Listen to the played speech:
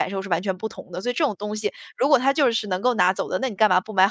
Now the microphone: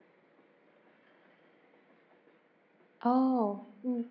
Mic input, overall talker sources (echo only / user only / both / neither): user only